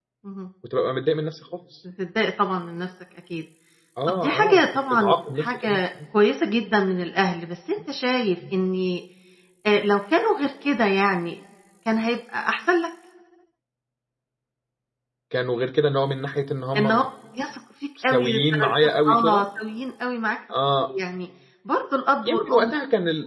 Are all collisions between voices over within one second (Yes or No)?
No